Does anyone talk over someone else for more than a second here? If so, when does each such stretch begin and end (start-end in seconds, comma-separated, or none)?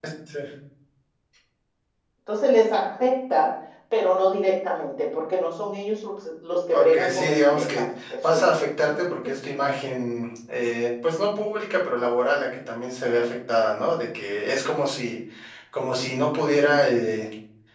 6.7-8.6